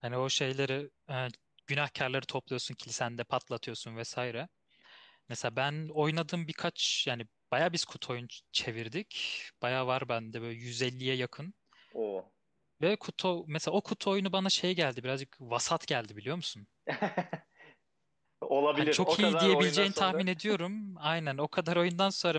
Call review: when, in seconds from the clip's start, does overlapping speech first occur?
18.7 s

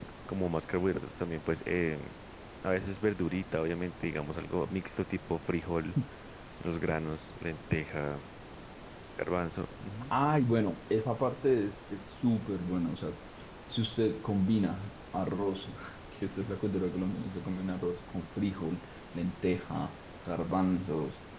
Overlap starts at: none

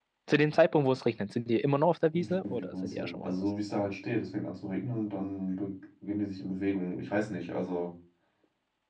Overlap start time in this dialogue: 2.1 s

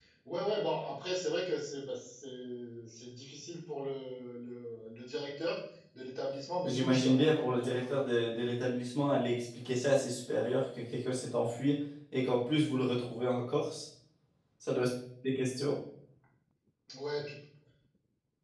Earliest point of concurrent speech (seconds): 6.6 s

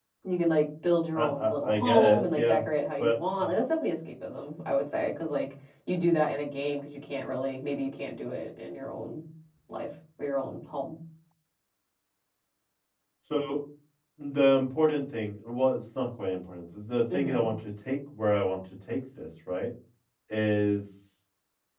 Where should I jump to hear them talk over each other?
1.1 s

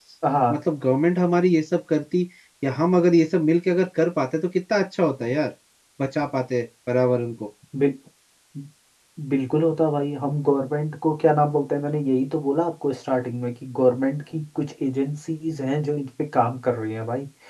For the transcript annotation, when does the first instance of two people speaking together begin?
none

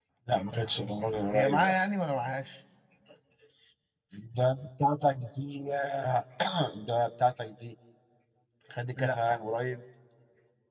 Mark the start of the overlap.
0.5 s

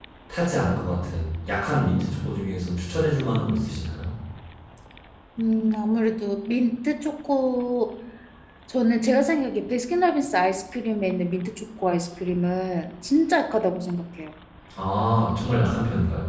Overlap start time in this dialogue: none

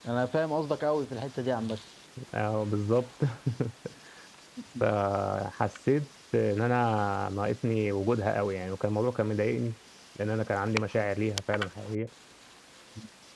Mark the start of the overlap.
none

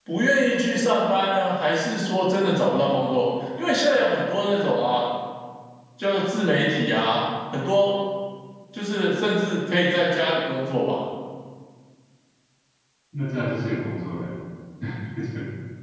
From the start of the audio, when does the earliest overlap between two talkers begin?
none

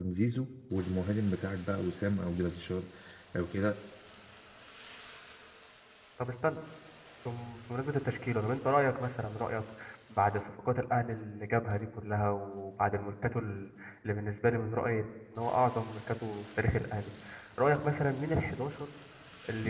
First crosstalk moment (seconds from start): none

